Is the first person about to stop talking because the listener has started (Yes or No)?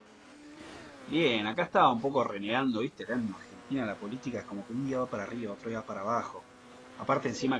No